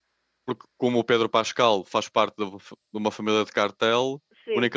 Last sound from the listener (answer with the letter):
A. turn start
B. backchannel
B